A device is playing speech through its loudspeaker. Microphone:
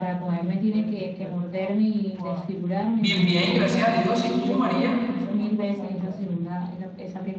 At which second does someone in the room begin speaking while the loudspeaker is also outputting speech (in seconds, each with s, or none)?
2.9 s